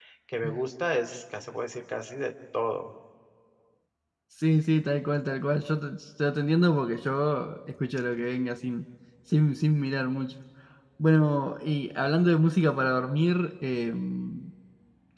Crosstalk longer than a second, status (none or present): none